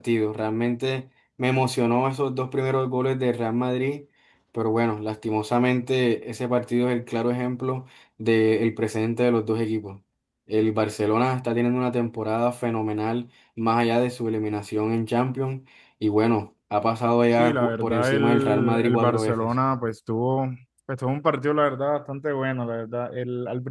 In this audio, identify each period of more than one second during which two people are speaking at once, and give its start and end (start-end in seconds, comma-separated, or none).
17.3-19.5